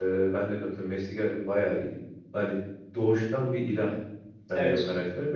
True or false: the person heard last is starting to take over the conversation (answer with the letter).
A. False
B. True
A